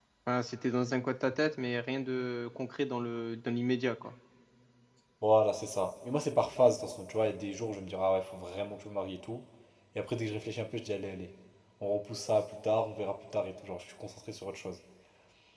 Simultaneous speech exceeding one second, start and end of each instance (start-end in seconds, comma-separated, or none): none